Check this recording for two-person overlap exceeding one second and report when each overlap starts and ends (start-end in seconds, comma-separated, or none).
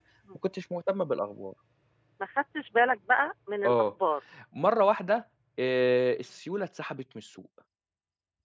none